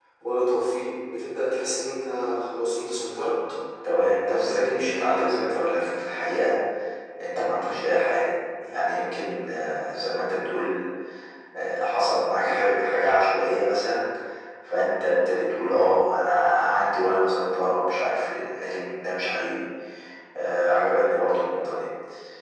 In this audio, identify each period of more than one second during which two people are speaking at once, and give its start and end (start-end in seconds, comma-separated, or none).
4.3-5.9